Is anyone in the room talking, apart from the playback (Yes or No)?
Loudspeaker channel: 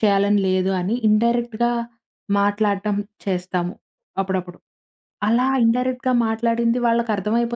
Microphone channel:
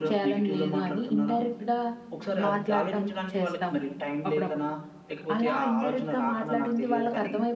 Yes